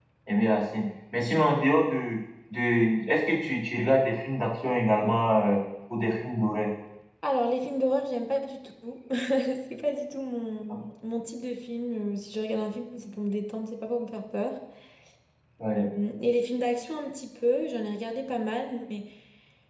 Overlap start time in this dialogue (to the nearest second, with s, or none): none